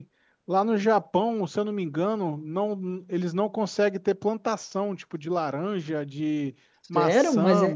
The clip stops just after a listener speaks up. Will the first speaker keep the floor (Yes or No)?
No